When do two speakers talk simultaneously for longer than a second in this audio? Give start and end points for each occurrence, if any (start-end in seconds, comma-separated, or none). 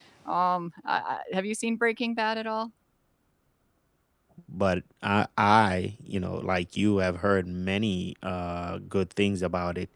none